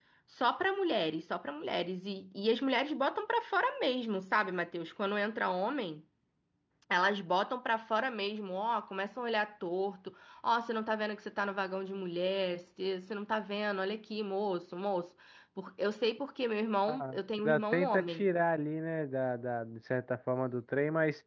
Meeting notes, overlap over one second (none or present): present